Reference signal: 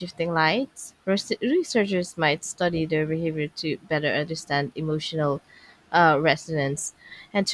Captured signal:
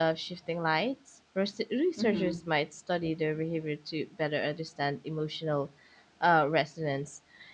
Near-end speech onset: 2.0 s

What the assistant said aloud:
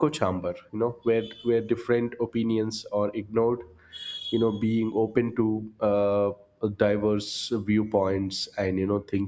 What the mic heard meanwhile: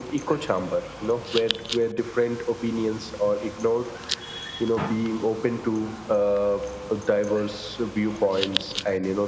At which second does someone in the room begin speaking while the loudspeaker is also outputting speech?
none

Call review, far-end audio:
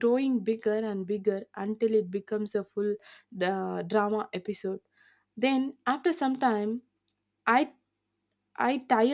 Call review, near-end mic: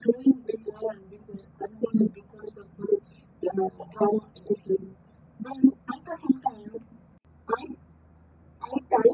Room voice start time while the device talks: none

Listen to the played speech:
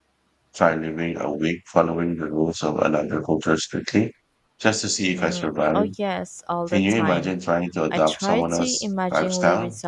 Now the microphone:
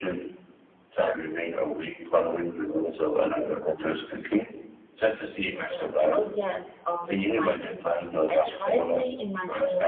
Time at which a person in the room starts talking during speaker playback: none

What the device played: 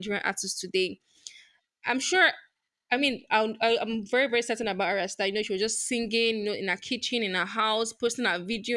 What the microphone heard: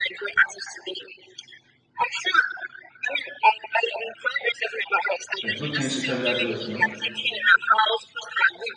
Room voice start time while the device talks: 5.4 s

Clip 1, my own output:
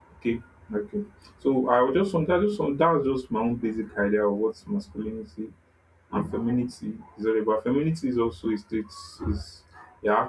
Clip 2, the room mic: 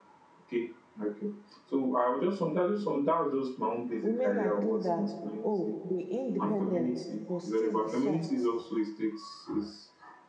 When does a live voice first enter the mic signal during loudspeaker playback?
4.0 s

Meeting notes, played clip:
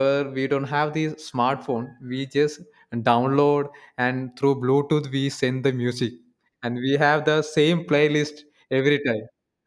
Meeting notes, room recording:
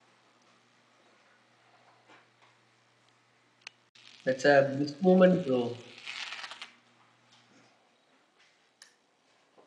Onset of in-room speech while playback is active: 4.2 s

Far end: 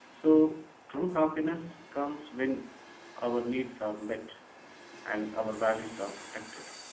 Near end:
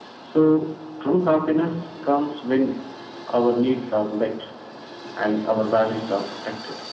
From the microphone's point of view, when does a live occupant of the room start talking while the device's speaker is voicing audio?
none

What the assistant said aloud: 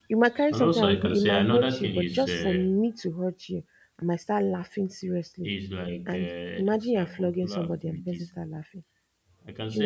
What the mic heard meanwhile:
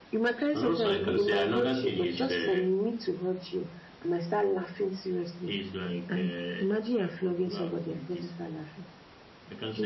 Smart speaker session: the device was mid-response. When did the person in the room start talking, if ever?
none

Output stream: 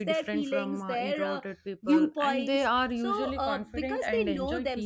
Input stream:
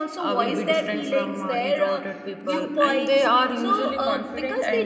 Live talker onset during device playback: none

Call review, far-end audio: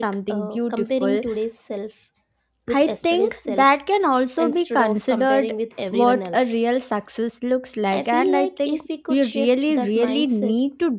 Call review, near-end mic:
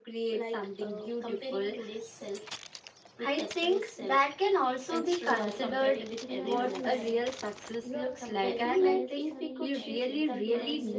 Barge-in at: 5.2 s

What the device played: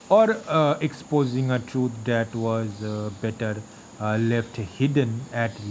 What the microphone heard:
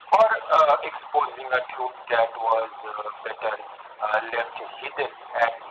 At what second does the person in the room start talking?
none

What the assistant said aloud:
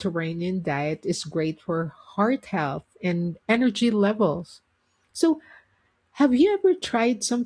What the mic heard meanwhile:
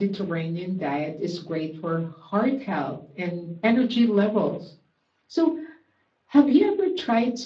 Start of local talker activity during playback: none

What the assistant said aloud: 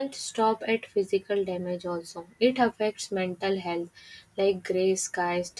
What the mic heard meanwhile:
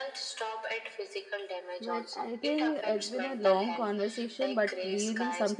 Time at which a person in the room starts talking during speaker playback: 1.8 s

